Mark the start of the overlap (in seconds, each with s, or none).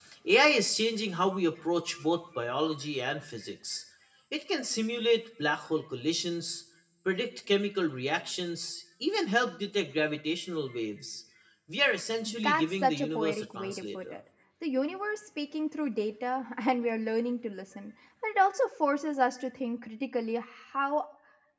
12.4 s